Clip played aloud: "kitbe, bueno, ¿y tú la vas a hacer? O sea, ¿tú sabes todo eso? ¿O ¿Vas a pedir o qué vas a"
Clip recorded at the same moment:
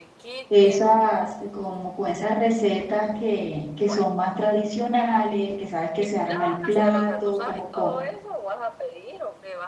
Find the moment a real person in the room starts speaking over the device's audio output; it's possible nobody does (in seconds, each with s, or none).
0.5 s